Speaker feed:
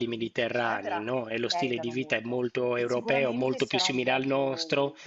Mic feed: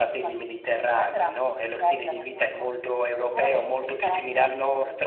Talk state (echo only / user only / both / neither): echo only